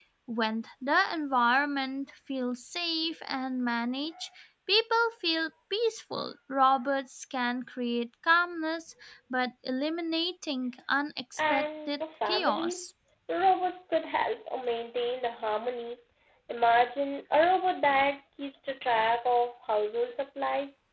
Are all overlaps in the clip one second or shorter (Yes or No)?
No